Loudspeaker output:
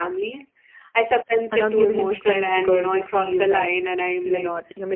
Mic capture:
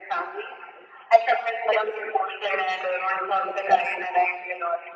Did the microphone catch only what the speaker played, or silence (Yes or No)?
Yes